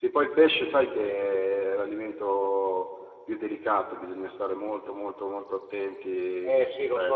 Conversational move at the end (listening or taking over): taking over